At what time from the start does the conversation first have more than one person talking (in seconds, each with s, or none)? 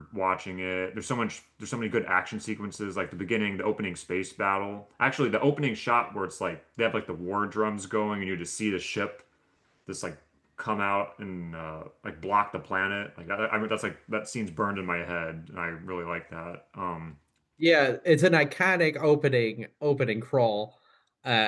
none